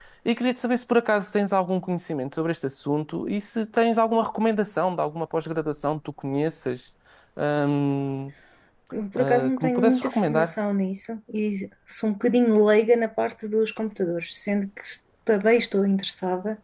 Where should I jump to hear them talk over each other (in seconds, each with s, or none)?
9.1 s